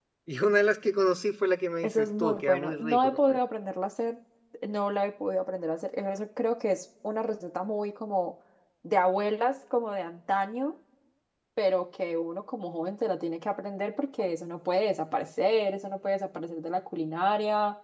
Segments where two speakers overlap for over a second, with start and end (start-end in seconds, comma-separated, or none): 1.8-3.3